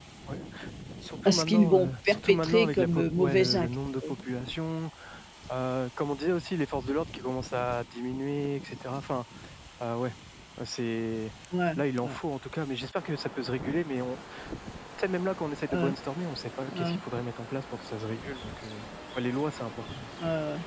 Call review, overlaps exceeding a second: present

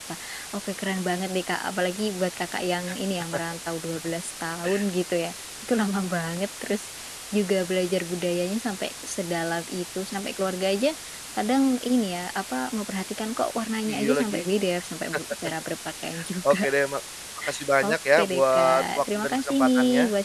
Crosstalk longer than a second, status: present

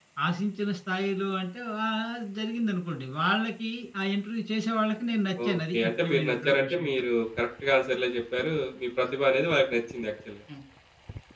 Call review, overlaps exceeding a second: present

